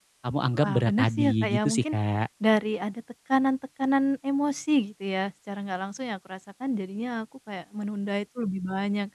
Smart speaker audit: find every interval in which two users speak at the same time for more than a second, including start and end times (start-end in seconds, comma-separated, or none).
0.6-2.0